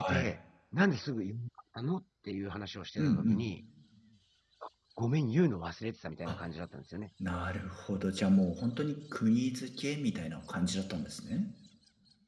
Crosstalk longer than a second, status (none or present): none